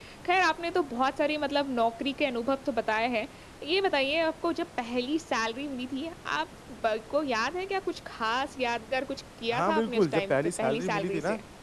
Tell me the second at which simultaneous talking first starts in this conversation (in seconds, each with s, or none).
9.5 s